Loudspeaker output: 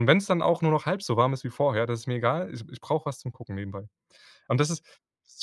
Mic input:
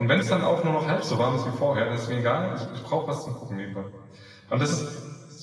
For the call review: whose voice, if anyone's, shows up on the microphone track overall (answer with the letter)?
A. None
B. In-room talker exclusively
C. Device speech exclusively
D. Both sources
C